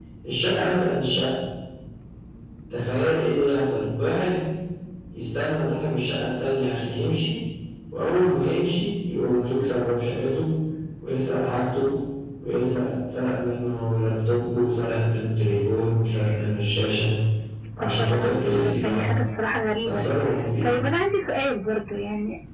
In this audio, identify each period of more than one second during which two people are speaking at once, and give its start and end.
17.8-19.1

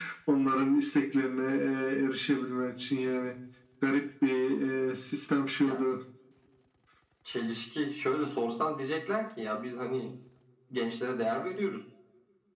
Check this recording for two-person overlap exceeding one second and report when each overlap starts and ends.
none

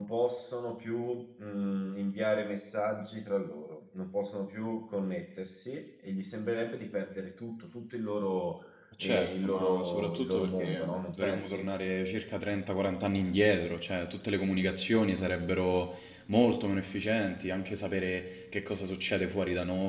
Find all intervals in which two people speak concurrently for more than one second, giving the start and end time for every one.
9.0-11.6

